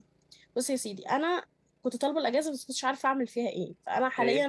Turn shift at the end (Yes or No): No